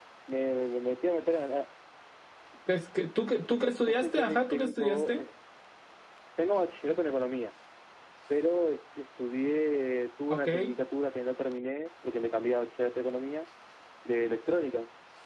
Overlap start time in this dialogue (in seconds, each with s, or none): 3.9 s